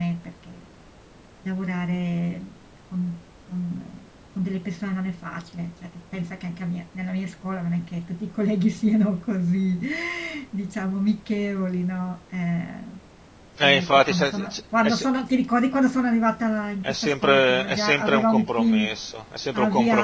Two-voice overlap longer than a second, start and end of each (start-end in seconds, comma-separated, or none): 13.6-15.1, 16.9-18.9